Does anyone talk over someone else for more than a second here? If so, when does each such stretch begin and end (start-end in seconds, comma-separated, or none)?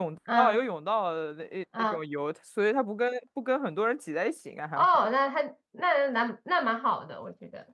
none